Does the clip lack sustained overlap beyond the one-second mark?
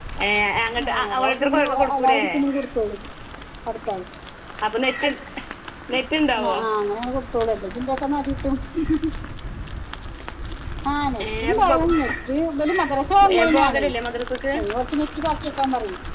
No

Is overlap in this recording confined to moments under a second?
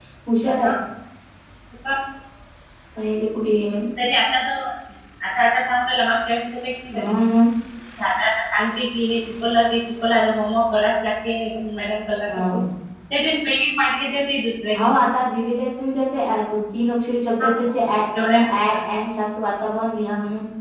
Yes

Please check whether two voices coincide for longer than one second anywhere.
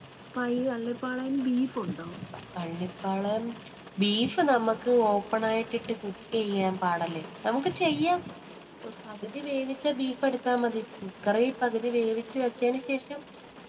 No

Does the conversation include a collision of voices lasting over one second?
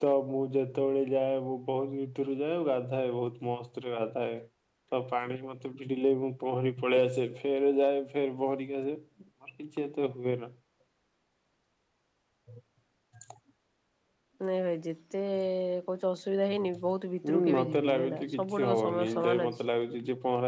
Yes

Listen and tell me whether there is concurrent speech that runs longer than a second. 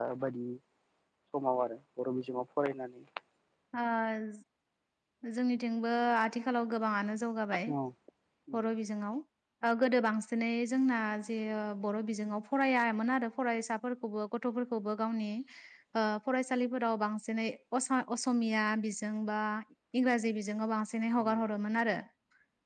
No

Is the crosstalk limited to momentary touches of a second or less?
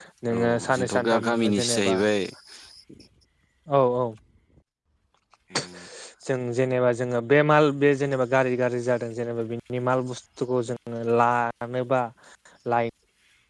No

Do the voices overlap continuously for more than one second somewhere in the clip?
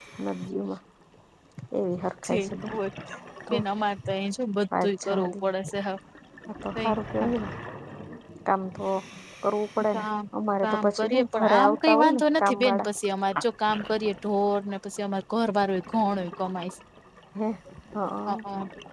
Yes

